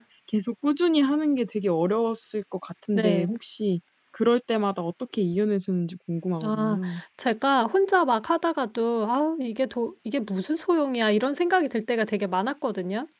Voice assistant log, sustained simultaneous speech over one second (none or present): none